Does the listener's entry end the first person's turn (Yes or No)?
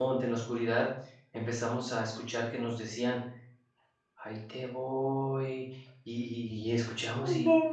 No